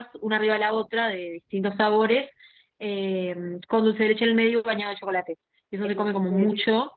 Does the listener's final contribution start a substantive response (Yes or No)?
No